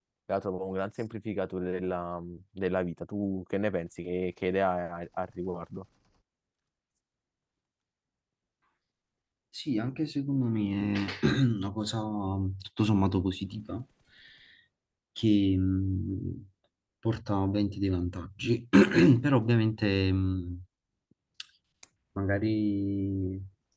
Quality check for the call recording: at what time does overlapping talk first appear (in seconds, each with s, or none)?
none